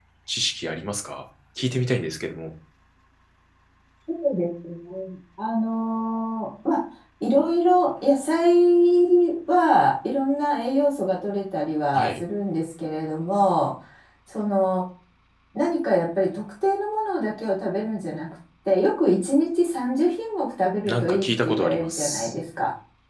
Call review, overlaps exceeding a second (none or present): present